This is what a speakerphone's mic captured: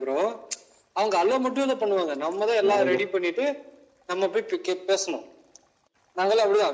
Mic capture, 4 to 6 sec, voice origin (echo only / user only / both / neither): echo only